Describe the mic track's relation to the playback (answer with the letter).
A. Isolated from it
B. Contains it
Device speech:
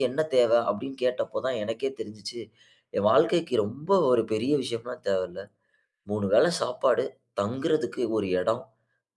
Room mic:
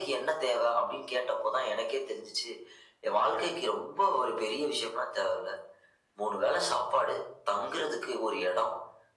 B